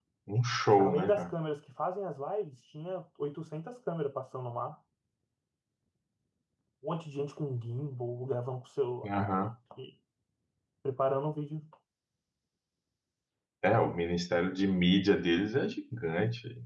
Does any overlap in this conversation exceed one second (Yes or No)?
No